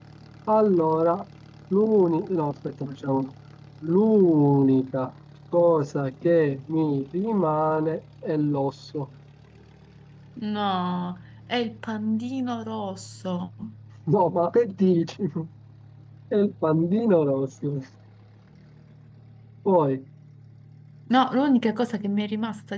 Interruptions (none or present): none